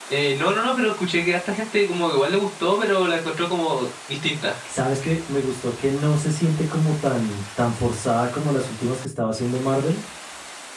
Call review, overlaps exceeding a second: none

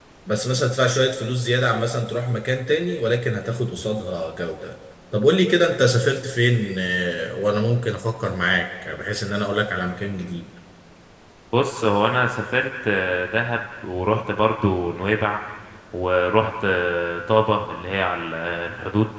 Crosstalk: none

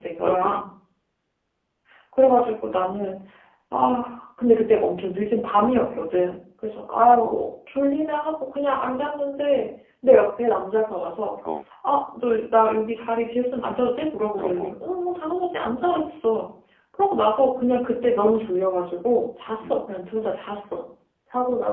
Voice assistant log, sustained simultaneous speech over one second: none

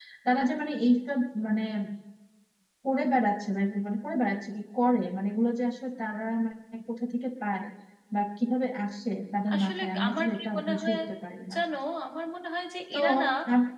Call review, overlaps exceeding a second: present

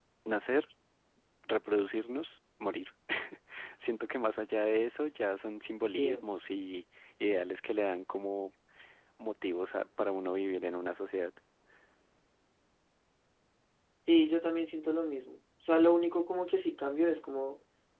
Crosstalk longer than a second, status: none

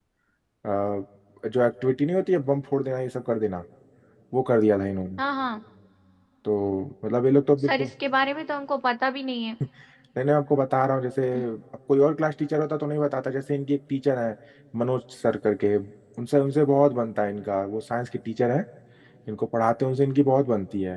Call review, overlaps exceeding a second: none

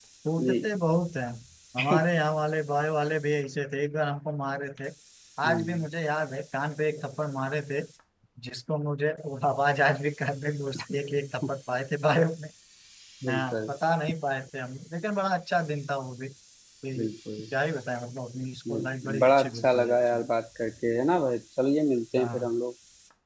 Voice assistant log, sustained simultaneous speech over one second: present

